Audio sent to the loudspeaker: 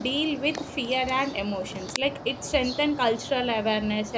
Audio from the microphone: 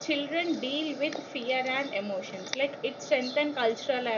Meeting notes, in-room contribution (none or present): none